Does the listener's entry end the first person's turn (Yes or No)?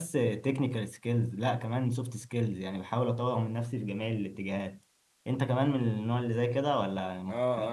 Yes